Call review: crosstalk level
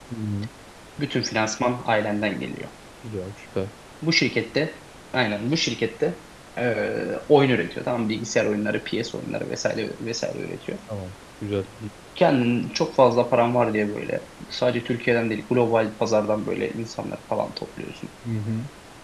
none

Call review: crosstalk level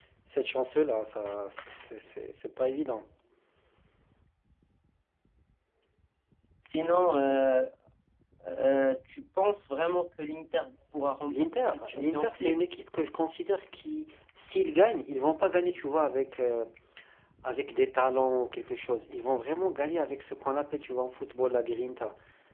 present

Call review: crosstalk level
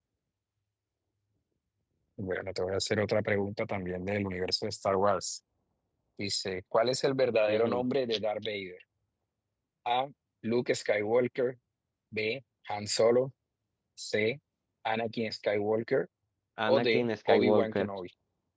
present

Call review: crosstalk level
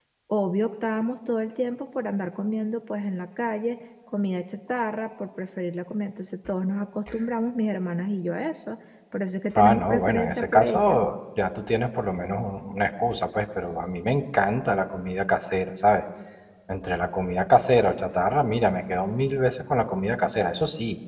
present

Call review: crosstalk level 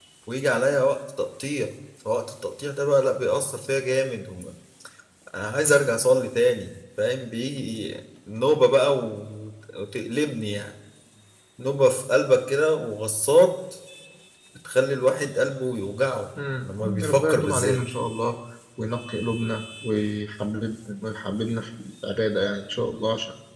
present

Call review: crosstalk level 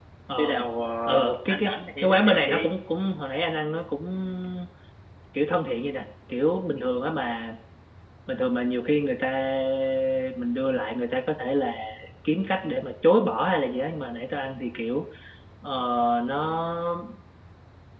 present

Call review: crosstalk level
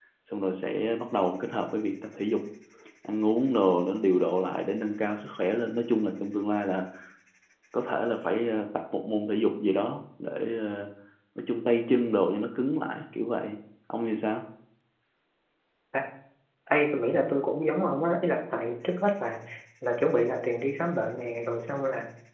none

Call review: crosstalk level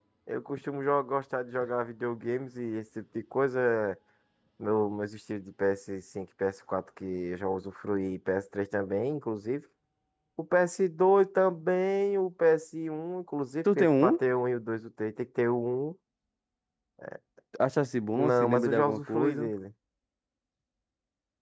present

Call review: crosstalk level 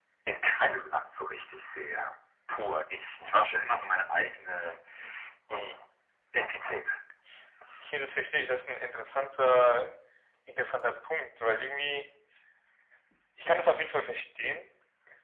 none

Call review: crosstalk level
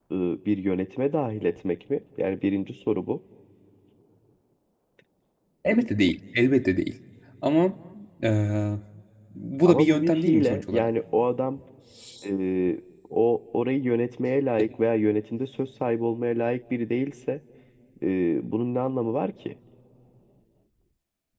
present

